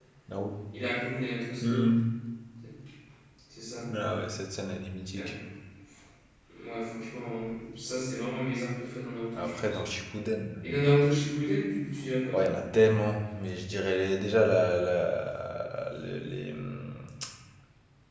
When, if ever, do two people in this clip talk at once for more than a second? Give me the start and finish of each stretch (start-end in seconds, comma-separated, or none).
none